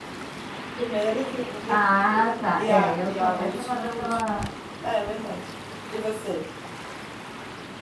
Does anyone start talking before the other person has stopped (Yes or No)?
Yes